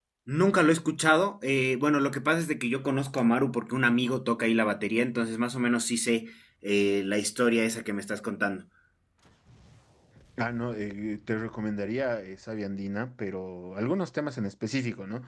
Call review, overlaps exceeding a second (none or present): none